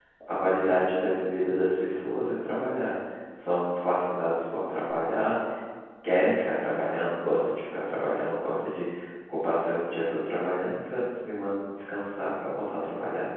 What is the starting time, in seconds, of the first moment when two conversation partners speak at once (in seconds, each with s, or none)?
none